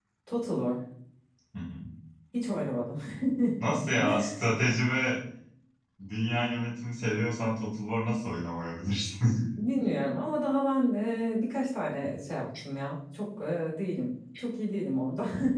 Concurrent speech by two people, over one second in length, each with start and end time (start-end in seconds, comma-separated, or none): none